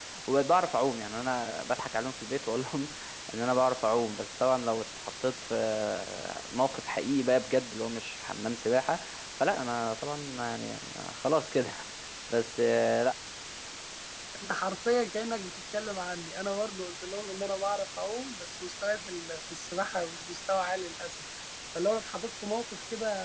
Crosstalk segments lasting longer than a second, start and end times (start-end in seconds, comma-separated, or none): none